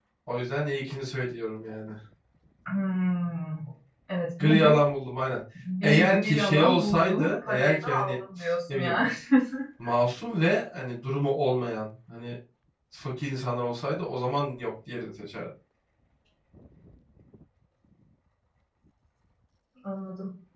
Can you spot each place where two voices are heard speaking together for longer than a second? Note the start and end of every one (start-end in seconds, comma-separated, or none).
5.8-8.2